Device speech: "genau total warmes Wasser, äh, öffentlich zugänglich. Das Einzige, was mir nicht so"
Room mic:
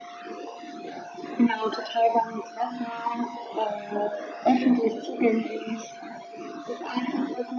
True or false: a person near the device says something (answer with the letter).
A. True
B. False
B